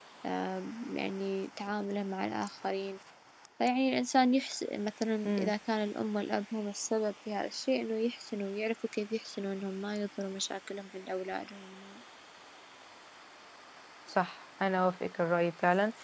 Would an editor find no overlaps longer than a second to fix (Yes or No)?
Yes